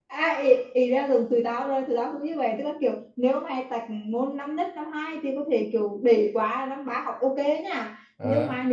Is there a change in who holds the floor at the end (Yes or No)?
No